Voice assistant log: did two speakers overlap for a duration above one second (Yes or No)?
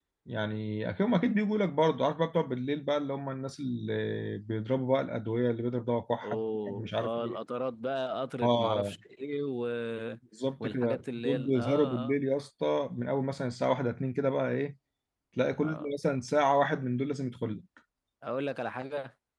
Yes